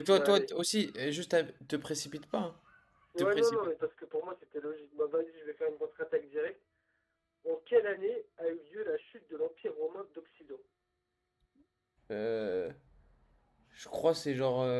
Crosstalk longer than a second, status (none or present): none